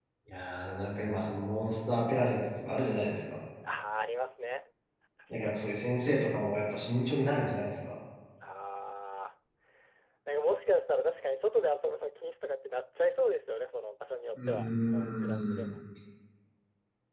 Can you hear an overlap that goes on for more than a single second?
Yes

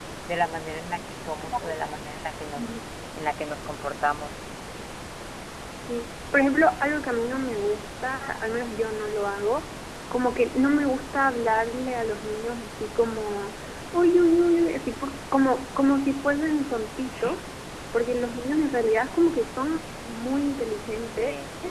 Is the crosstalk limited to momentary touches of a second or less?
Yes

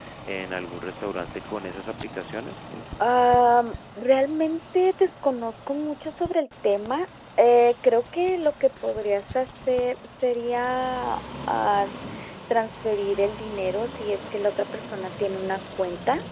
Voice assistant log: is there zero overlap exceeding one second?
Yes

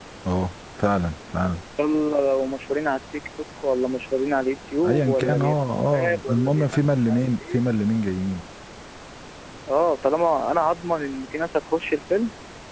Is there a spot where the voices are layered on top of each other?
Yes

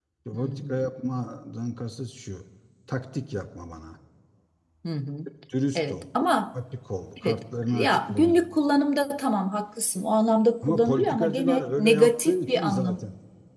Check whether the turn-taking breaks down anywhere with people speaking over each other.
Yes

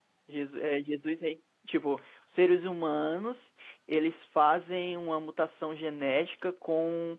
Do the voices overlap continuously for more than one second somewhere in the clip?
No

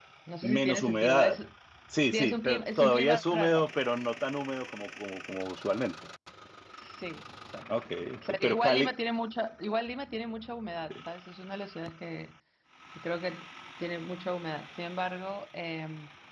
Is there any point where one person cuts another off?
Yes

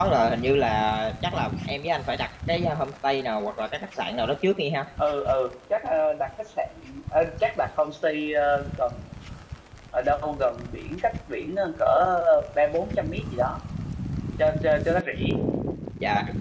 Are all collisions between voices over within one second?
Yes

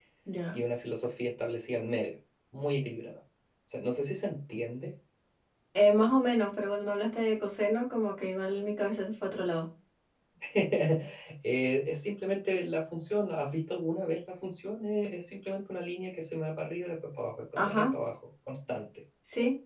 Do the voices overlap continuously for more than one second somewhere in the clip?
No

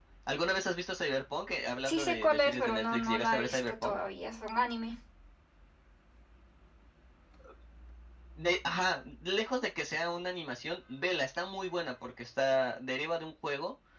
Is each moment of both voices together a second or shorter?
No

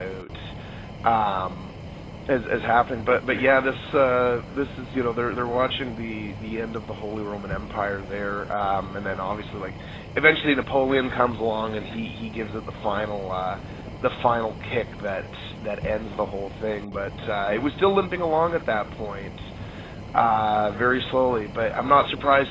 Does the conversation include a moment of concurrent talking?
No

